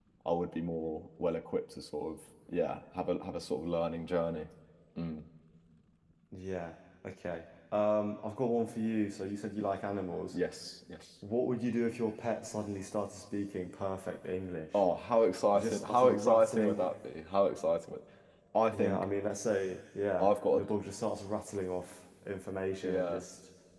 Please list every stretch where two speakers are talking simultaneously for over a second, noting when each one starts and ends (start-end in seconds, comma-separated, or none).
15.4-16.9